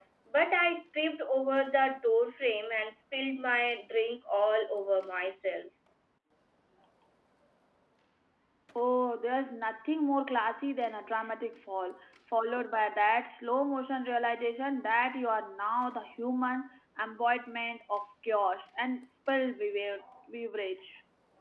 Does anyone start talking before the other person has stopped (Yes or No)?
No